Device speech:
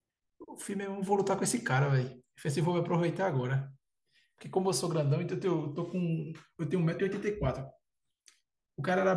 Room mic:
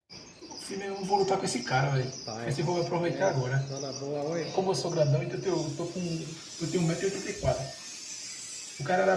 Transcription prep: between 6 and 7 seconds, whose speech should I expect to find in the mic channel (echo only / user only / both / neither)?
echo only